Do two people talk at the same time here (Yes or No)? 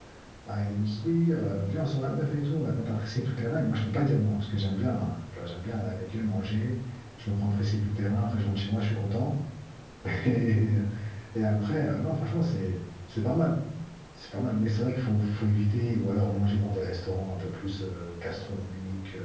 No